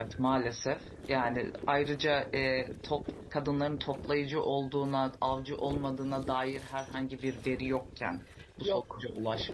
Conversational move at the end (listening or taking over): listening